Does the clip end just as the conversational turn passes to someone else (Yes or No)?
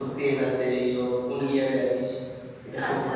Yes